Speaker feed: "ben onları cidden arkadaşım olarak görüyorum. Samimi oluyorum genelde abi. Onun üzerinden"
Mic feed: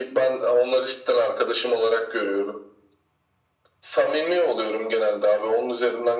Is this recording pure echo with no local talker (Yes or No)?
Yes